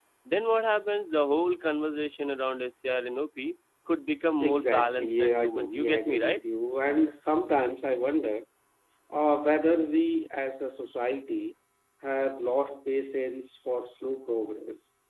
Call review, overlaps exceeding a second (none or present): present